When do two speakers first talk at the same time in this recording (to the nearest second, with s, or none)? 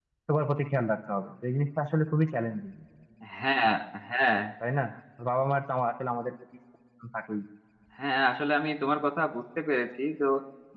none